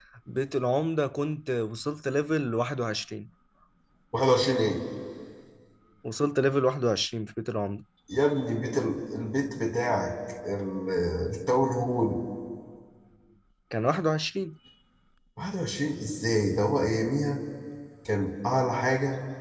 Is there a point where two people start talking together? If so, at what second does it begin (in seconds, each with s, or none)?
none